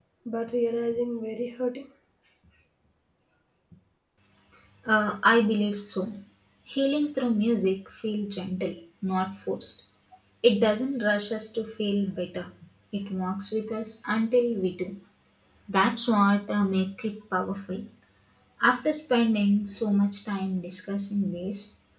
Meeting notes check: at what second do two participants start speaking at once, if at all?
none

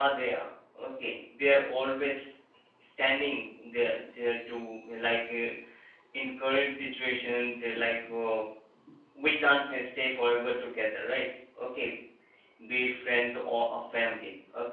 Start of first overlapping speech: none

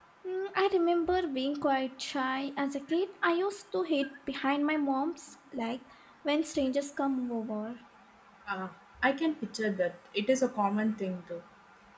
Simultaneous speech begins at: none

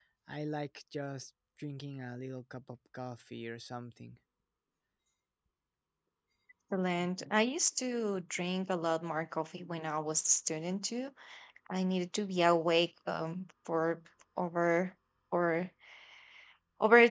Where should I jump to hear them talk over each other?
none

